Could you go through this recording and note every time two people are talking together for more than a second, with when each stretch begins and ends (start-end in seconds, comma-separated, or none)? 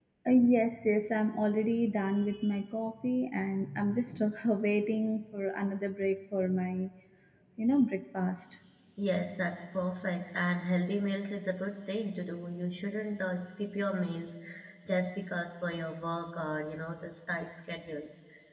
none